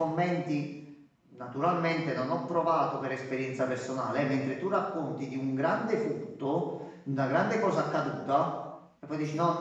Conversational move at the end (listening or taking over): listening